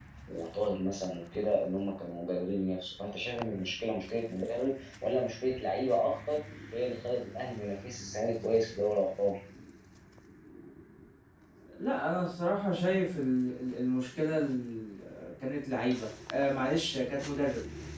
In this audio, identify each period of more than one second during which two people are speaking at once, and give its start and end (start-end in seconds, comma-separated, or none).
none